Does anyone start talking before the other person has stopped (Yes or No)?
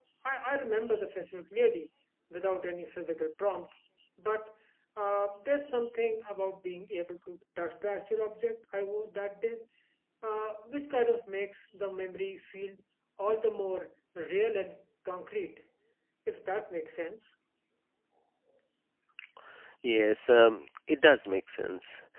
No